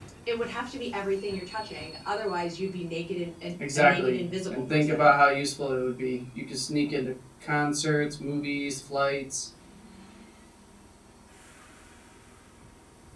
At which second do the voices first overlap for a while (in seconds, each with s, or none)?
3.6 s